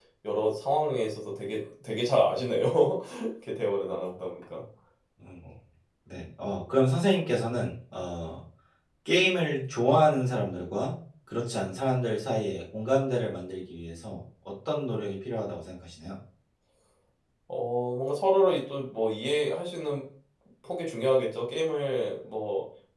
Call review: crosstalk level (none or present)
none